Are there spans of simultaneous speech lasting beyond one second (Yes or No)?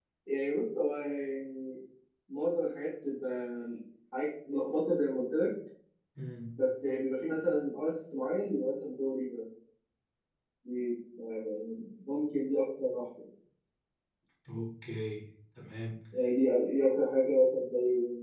No